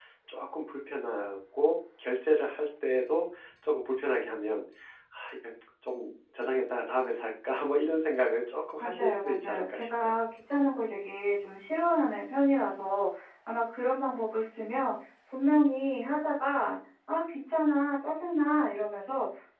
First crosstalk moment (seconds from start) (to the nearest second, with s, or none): 9 s